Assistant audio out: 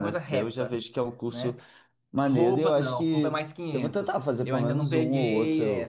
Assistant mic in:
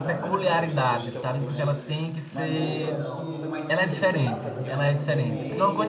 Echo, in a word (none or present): present